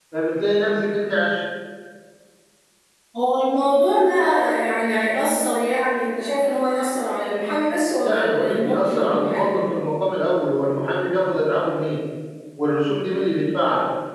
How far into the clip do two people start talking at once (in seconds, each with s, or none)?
8.0 s